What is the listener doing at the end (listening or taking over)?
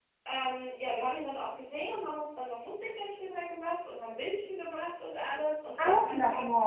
taking over